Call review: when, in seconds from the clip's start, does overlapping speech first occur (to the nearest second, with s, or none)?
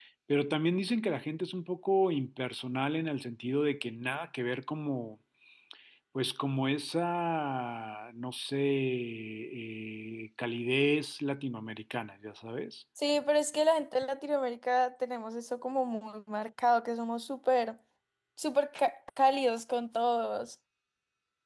none